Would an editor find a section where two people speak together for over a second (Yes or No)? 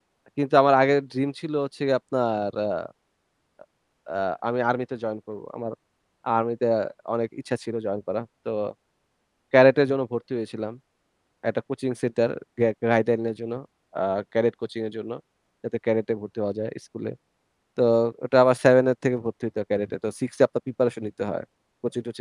No